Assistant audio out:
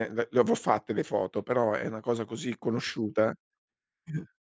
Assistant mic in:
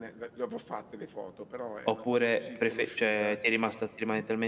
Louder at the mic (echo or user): user